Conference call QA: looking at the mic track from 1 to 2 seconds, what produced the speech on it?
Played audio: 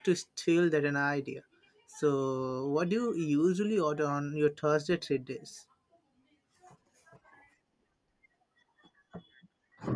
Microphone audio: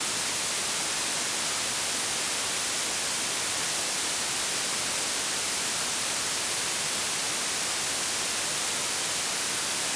neither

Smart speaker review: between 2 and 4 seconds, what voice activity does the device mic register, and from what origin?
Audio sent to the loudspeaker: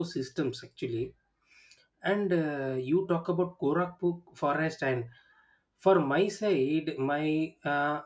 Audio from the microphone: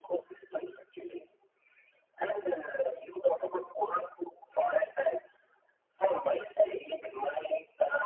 echo only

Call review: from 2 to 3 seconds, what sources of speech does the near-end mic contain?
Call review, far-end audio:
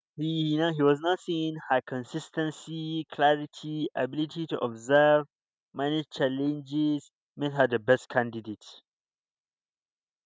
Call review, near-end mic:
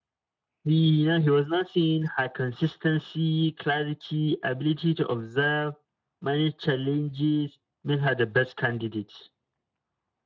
echo only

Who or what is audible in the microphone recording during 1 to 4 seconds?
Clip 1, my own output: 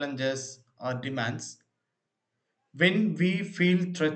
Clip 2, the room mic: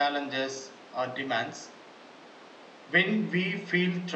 echo only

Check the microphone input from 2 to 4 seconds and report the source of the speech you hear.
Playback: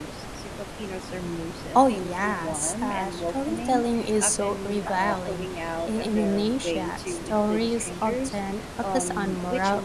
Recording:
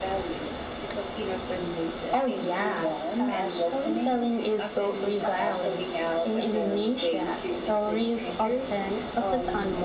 echo only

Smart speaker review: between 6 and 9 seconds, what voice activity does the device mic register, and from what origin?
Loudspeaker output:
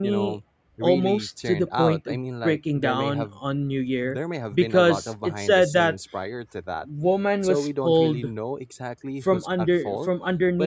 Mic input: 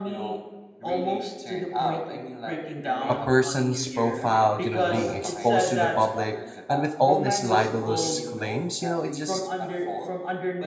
both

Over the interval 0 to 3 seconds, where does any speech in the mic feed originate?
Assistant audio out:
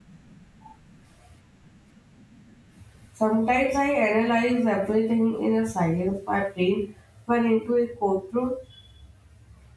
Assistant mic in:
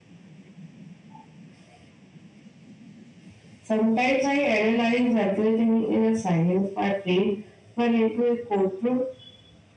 neither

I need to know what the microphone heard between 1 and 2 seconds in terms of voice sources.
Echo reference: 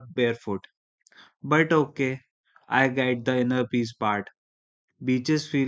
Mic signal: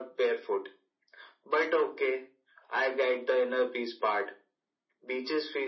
echo only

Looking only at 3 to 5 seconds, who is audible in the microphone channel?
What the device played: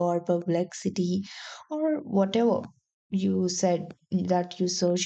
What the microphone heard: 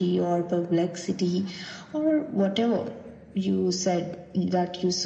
echo only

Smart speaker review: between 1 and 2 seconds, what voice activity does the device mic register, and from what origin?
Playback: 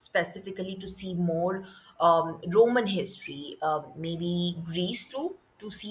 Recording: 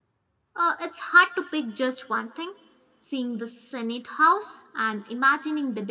user only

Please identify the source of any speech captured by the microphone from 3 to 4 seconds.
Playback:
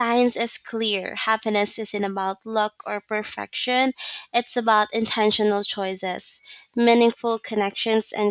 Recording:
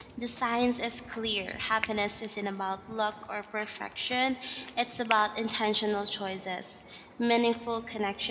echo only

